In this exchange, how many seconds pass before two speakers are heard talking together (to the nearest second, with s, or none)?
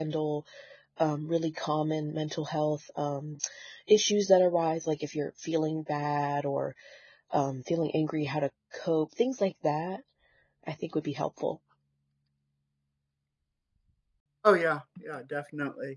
none